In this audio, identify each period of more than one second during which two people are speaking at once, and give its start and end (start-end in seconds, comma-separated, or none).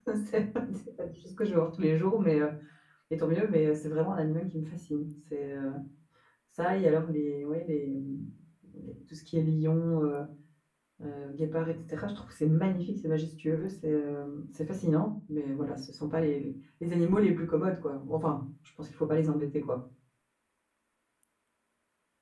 none